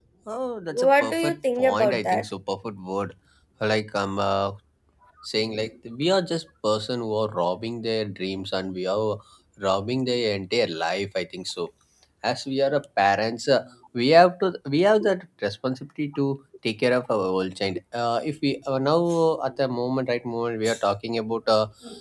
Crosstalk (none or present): present